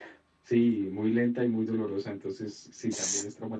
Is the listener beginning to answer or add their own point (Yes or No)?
No